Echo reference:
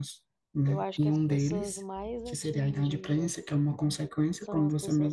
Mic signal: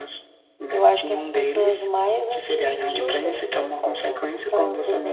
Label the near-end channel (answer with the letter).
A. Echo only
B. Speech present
B